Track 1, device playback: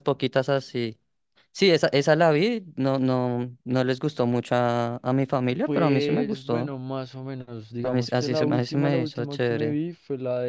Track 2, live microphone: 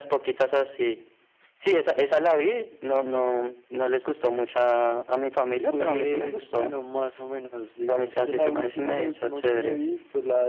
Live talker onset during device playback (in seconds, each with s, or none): none